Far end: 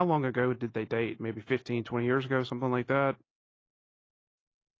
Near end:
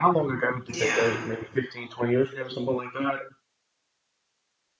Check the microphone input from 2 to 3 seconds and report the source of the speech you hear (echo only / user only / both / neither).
echo only